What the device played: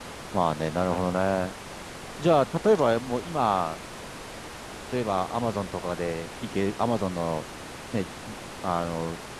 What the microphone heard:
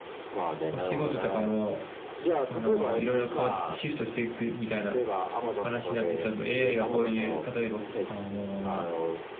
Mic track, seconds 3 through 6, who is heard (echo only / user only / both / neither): both